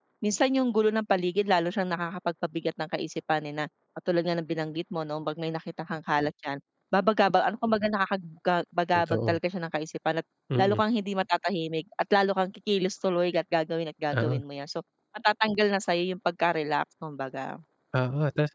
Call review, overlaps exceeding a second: none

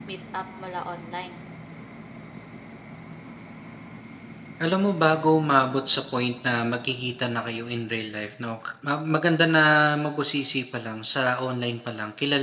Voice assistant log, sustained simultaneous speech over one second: none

